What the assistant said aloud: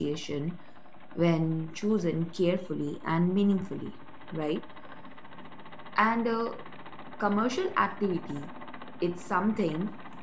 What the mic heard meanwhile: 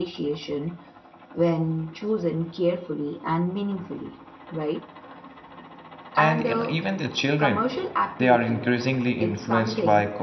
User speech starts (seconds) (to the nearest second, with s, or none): 6 s